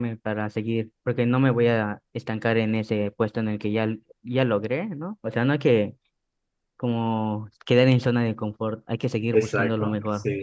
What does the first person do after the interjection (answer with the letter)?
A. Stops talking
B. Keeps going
A